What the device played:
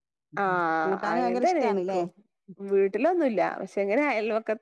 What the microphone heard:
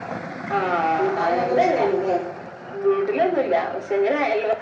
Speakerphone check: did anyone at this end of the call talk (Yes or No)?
No